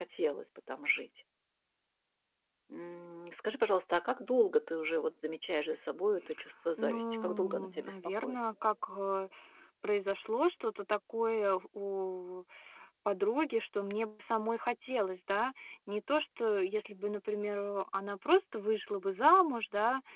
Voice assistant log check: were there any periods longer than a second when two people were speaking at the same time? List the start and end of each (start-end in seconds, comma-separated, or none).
6.8-8.3